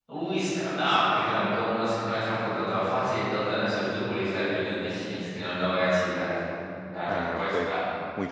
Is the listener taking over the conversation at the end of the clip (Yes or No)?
Yes